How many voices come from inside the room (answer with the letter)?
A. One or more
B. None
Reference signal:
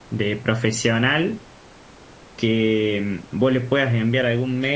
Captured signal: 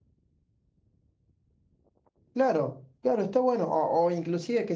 A